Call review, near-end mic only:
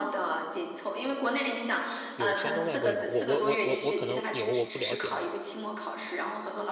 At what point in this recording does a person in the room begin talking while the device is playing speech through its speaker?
2.1 s

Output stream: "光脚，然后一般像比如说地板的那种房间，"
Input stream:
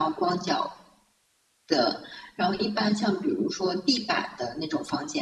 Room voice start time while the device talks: none

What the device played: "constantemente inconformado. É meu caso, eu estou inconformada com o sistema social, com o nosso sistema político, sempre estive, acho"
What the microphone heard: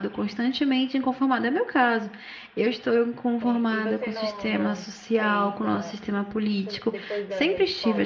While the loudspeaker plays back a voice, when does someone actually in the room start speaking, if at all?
3.4 s

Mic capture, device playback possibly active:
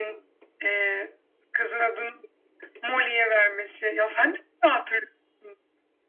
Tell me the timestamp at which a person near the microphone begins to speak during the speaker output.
none

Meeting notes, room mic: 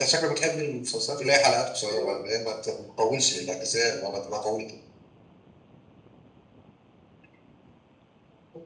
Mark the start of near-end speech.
none

